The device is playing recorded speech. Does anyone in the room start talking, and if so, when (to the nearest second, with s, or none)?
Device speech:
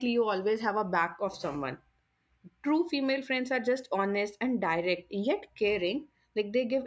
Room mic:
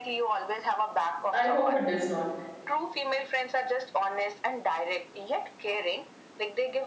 1 s